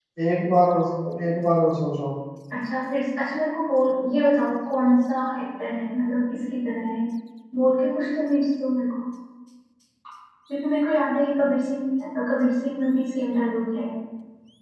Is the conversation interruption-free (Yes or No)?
Yes